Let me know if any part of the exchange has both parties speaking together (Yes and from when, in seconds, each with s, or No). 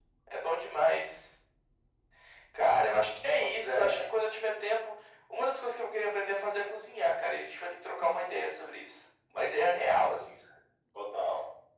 Yes, from 3.4 s